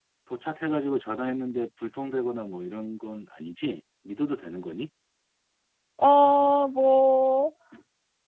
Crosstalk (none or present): none